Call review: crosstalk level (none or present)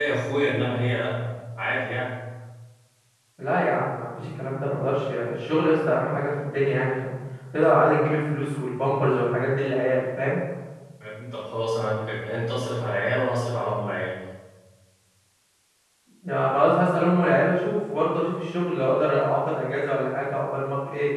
none